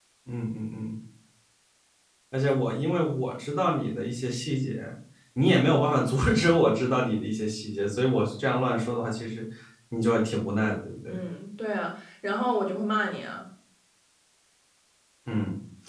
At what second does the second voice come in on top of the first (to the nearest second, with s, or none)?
none